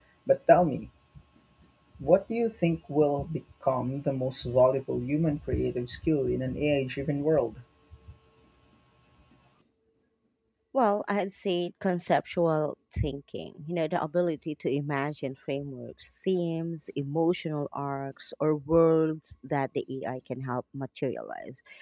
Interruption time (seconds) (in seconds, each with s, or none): none